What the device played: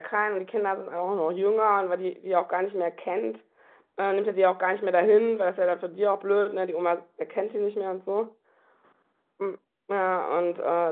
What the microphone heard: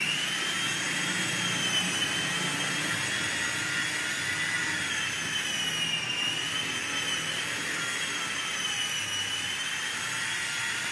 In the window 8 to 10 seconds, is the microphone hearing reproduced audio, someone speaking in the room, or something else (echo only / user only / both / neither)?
neither